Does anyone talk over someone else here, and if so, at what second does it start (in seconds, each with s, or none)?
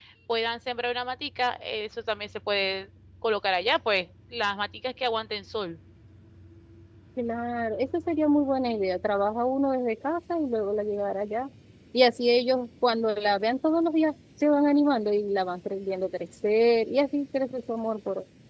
none